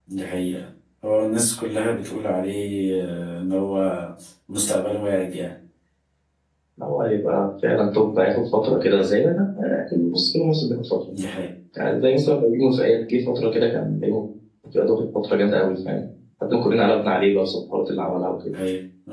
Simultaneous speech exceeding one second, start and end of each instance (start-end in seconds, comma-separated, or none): none